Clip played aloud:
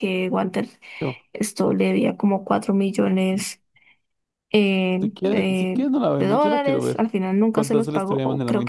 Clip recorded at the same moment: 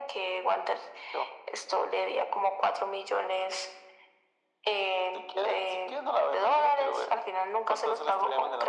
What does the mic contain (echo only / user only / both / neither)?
echo only